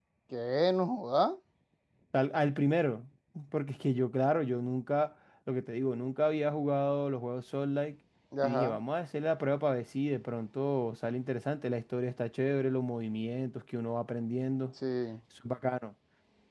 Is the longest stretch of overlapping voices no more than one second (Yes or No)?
Yes